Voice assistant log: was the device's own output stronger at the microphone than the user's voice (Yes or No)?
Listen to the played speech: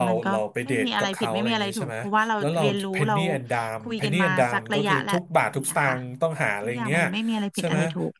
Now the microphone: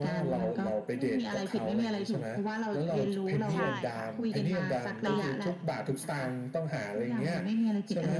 Yes